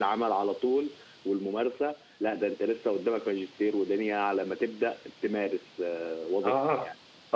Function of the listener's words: taking over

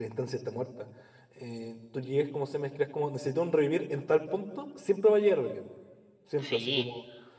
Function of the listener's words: listening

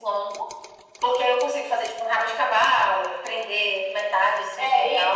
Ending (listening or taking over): taking over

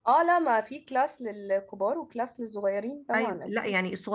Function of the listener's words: taking over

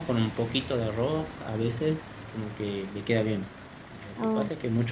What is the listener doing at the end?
listening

